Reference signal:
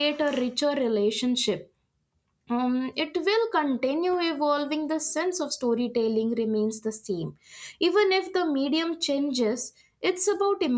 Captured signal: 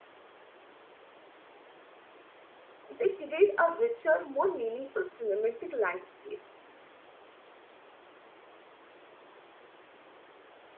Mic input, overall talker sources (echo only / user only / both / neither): user only